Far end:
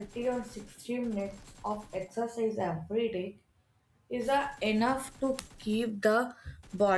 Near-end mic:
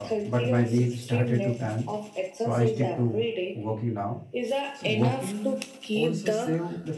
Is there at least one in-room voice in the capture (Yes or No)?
Yes